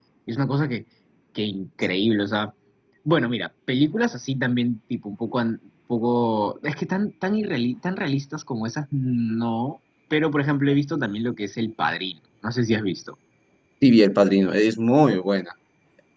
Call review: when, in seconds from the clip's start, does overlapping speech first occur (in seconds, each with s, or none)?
none